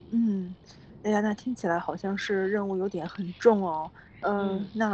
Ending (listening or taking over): listening